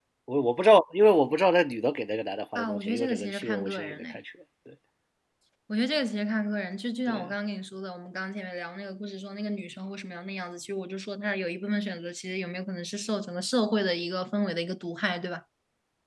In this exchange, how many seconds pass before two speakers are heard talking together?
2.5 s

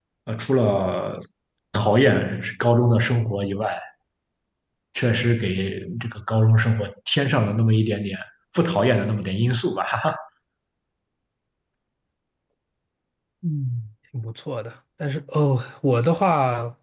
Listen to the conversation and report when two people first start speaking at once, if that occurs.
none

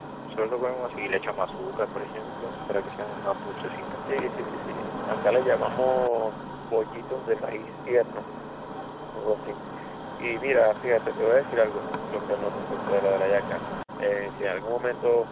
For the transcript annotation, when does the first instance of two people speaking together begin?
none

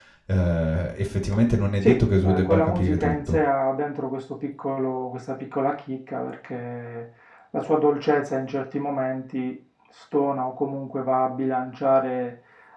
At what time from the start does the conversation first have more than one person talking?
1.8 s

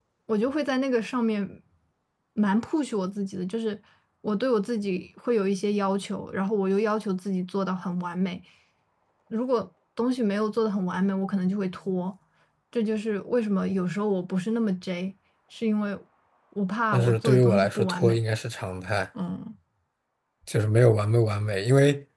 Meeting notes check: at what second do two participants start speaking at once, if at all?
16.9 s

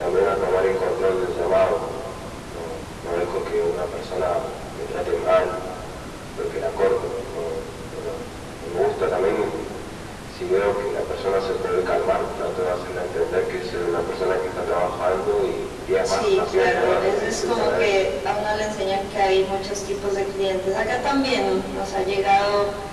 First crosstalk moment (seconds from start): 16.0 s

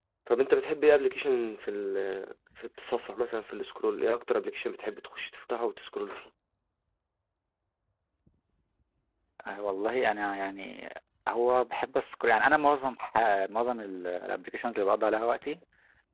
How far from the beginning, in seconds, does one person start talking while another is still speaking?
none

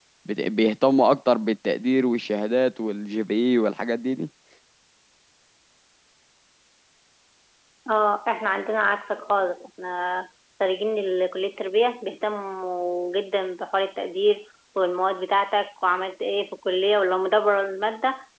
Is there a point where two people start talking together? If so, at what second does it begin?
none

